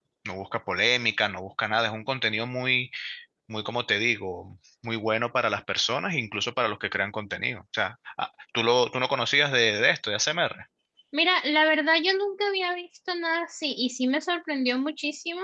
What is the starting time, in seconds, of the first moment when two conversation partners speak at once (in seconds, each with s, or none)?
none